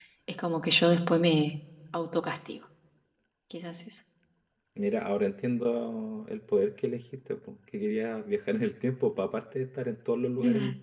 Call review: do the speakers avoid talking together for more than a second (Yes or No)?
Yes